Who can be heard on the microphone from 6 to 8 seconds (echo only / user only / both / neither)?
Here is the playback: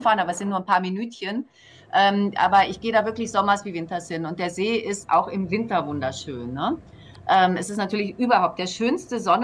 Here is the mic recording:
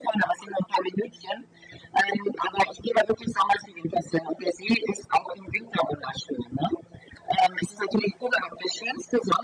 echo only